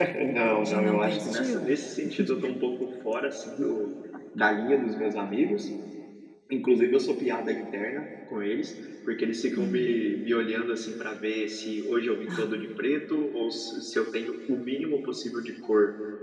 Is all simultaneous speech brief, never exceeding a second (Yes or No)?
No